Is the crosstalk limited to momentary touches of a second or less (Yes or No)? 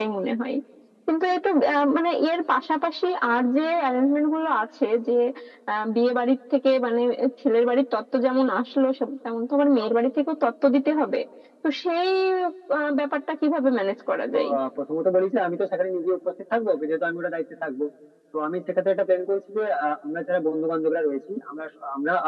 Yes